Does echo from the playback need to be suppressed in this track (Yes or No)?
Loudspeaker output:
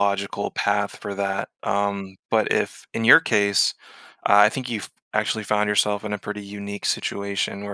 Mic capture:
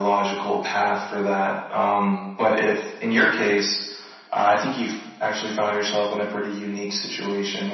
Yes